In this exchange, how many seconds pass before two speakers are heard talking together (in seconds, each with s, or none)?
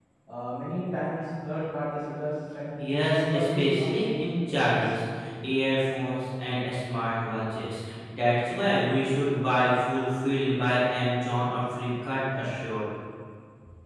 3.1 s